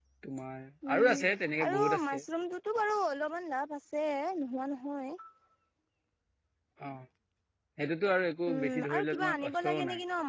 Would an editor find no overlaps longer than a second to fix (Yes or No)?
No